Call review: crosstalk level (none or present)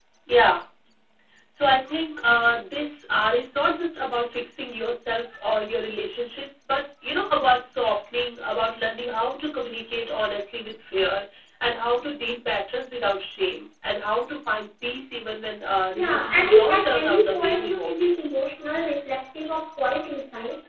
present